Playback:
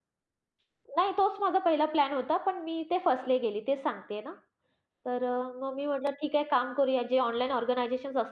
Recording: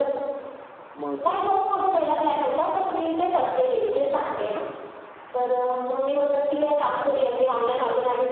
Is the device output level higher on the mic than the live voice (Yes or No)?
Yes